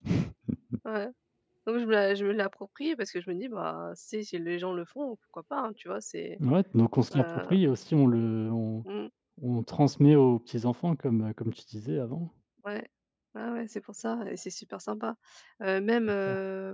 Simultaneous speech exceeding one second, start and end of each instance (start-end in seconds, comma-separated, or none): none